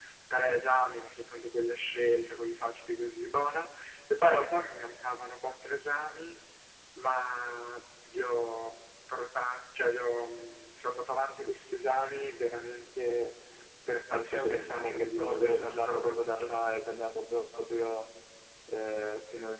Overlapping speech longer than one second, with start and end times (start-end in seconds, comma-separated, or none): 14.1-16.5